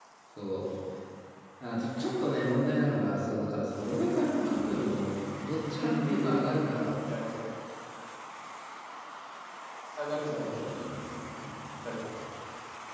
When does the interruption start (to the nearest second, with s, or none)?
6 s